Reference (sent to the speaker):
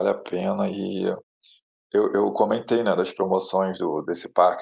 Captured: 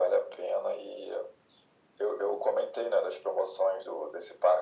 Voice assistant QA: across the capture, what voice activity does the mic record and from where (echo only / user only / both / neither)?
echo only